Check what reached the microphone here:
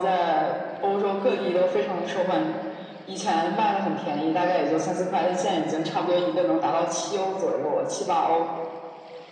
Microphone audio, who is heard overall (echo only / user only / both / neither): echo only